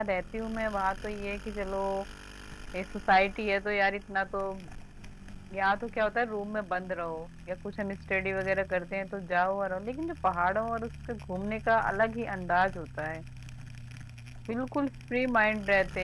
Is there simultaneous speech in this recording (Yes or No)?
No